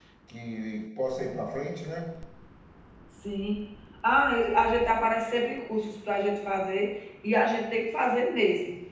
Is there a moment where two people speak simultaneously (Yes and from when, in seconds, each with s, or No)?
No